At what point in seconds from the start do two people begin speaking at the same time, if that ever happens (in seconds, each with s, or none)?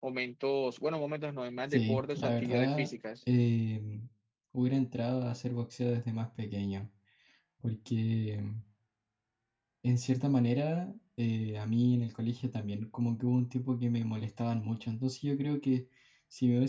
1.7 s